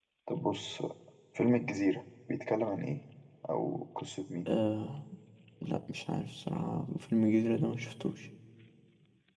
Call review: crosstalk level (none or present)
none